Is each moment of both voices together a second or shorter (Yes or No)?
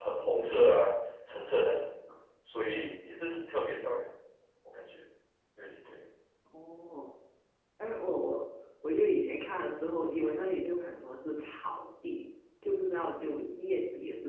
Yes